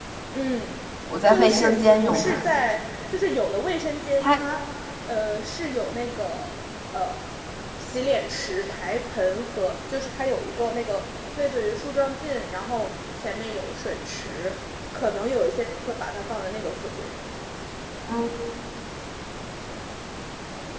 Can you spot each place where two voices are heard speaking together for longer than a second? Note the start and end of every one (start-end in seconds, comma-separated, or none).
1.3-2.5